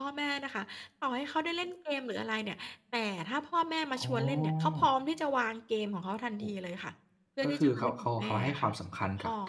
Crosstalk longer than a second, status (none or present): present